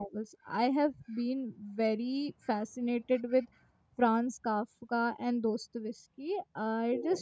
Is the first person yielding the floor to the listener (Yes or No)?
No